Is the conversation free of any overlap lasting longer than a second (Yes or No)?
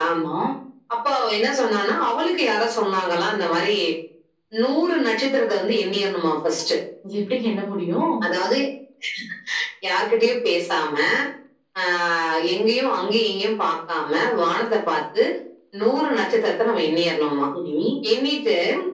Yes